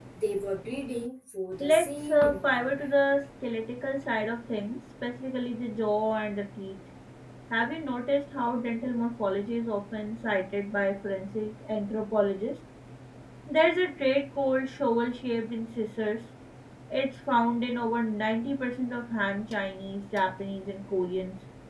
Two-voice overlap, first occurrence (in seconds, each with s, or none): 1.6 s